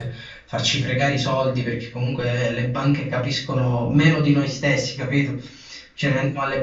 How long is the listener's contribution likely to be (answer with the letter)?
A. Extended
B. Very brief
B